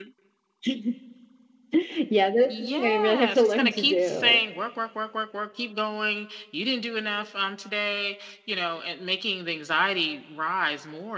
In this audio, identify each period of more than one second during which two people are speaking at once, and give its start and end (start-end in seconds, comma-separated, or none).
2.8-4.4